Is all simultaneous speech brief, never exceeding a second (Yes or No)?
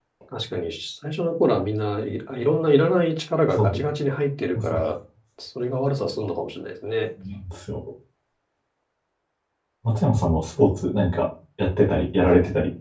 Yes